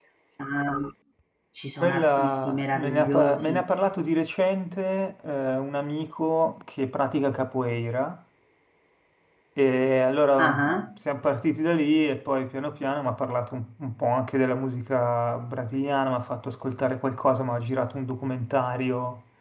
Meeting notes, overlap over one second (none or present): present